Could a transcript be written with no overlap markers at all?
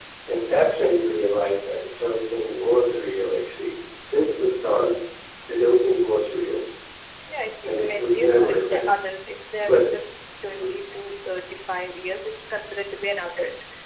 No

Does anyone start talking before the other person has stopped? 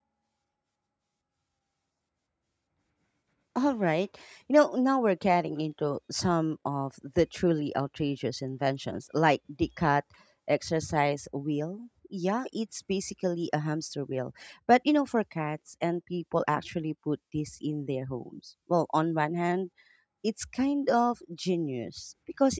No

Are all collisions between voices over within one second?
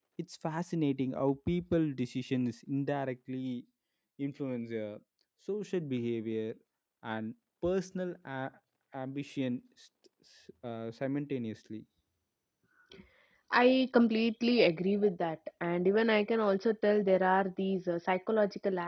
Yes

